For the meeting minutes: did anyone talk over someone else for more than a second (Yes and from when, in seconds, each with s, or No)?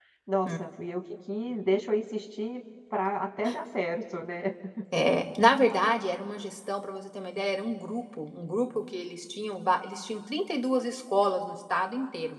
No